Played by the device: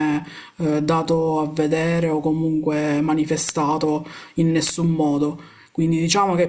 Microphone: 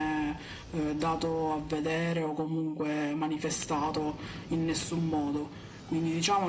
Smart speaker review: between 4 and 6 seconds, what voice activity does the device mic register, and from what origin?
echo only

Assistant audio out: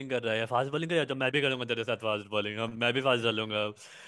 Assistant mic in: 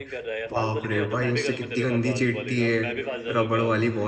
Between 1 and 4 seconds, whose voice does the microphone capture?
both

